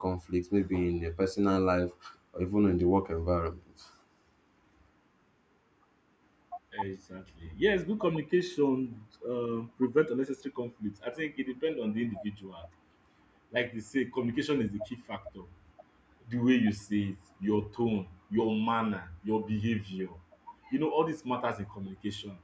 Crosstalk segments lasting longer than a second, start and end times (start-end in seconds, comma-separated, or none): none